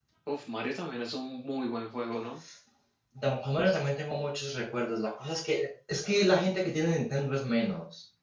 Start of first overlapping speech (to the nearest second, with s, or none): none